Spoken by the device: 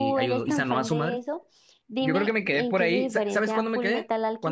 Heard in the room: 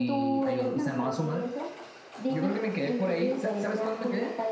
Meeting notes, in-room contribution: none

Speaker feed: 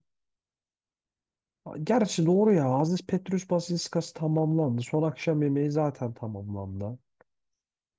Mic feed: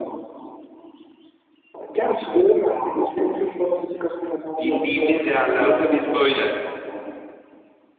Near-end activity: present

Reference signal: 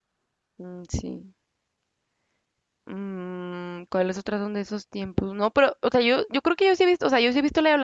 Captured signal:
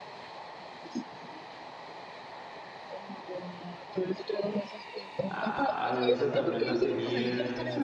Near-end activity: present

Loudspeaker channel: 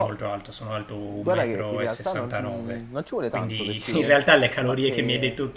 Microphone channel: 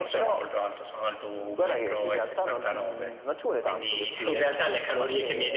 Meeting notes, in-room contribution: none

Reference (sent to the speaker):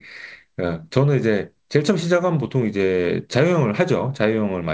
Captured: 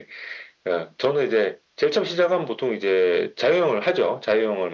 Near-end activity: none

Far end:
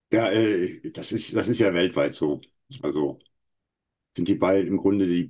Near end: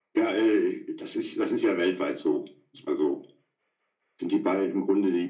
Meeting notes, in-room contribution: none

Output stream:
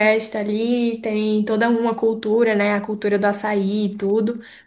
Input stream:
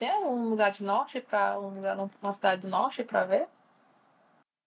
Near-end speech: present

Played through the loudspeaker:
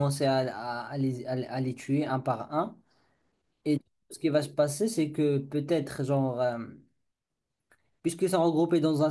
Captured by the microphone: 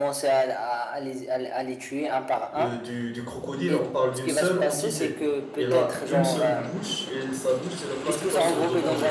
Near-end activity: present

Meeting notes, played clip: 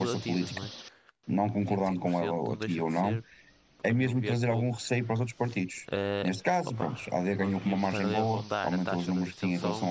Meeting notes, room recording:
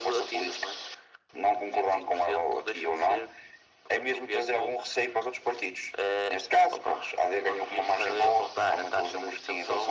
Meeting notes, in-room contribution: none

